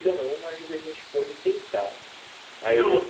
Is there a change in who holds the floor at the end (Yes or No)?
No